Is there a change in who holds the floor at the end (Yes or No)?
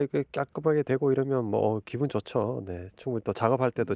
No